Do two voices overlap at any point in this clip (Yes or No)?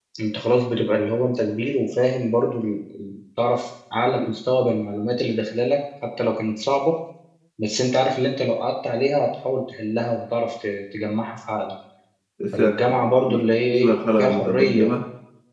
Yes